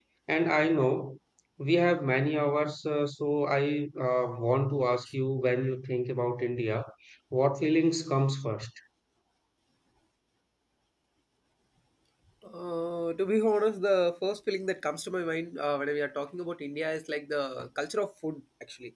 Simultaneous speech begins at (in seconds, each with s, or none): none